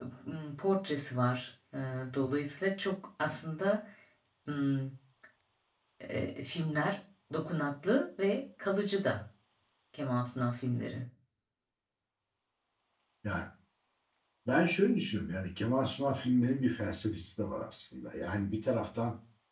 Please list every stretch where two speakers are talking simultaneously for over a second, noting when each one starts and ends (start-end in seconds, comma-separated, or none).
none